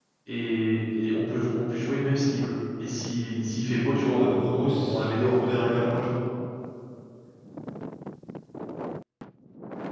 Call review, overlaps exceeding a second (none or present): present